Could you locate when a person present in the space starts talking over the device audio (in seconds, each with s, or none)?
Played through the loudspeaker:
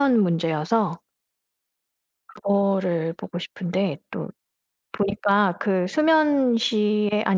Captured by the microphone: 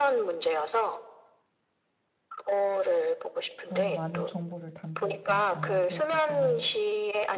3.6 s